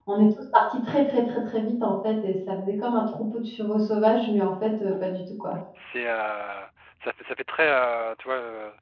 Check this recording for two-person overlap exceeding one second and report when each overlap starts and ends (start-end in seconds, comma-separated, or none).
none